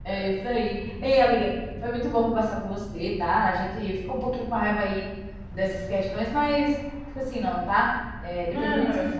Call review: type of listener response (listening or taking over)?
taking over